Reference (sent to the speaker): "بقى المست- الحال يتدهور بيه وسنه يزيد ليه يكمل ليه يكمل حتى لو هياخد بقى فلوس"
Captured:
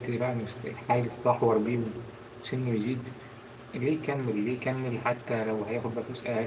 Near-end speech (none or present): none